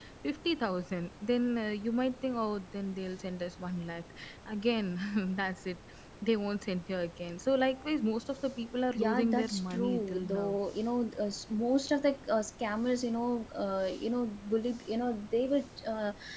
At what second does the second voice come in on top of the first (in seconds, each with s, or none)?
8.9 s